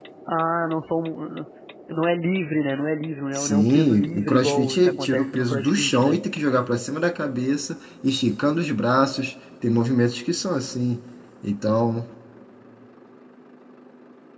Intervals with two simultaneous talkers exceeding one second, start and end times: 3.4-6.2

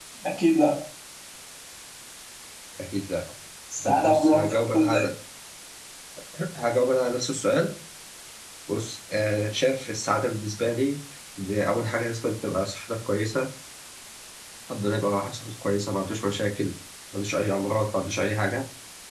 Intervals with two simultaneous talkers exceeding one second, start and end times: 3.8-5.0

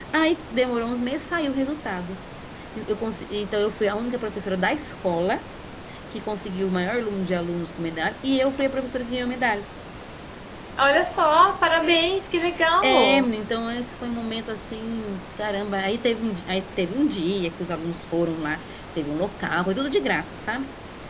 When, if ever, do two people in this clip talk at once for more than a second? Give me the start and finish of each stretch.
none

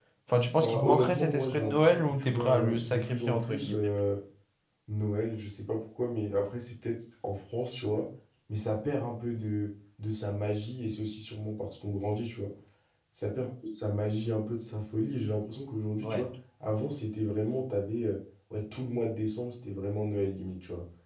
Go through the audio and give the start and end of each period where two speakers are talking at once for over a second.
0.6-3.7

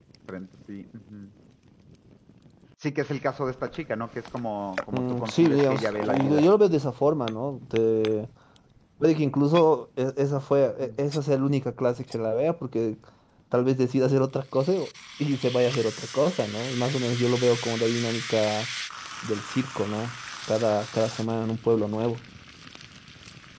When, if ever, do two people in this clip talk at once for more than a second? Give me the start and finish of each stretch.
4.9-6.4

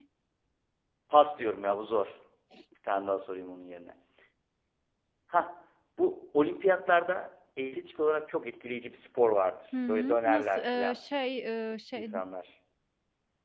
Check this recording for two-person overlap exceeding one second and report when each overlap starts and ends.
9.7-11.0

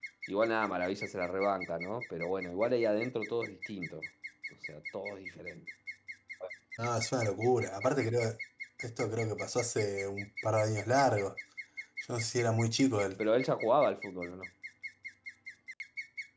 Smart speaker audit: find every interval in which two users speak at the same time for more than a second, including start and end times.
none

